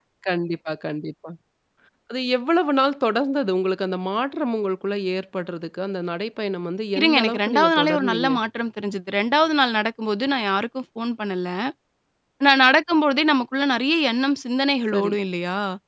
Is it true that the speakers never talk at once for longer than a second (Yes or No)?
No